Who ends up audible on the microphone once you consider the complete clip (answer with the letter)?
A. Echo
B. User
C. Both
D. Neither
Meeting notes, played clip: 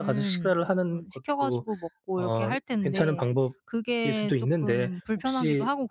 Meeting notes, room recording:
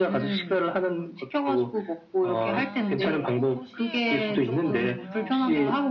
C